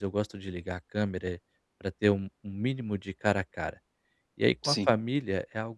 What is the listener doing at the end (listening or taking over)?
listening